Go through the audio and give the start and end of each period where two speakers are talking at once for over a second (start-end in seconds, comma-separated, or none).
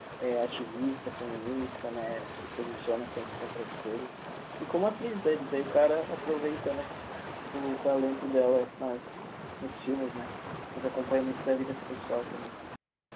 none